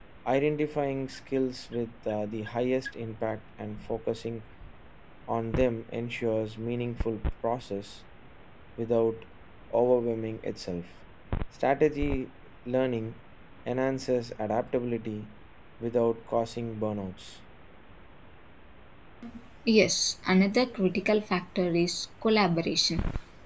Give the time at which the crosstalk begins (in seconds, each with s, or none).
none